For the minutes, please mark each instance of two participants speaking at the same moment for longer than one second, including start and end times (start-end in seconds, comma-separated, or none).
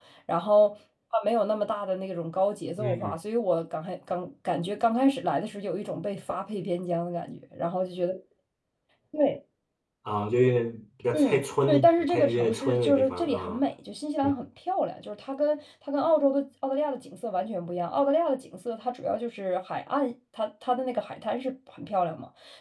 11.1-13.6